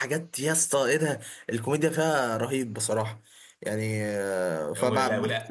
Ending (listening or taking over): taking over